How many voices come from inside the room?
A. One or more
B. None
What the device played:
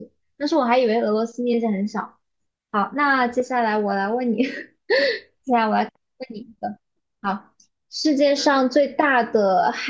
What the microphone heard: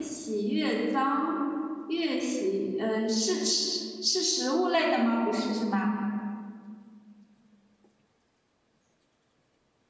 A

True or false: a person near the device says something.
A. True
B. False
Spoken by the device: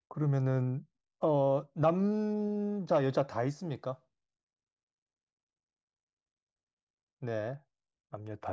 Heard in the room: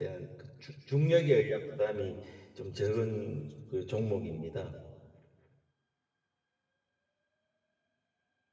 A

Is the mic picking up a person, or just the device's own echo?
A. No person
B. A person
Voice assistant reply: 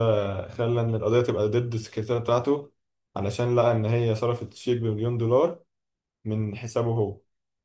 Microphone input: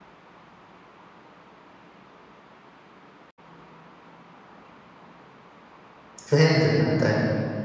B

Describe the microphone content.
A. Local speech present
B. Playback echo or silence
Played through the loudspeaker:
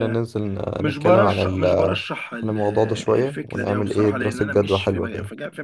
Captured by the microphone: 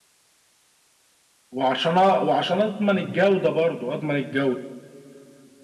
A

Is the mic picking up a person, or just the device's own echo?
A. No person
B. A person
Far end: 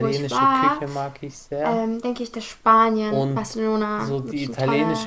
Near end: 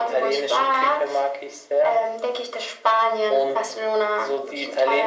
A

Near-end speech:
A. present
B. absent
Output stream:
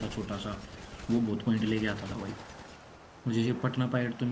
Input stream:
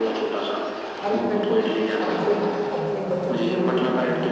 A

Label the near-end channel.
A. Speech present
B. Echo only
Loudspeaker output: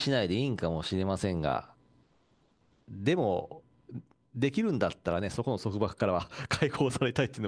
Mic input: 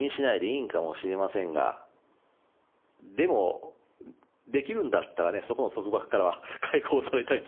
B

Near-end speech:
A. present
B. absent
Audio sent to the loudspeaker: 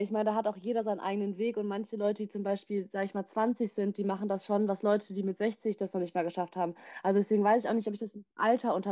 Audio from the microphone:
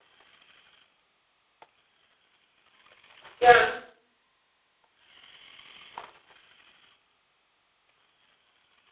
A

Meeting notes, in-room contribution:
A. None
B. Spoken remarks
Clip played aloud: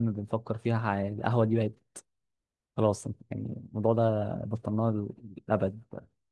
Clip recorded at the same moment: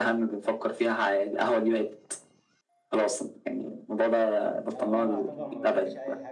B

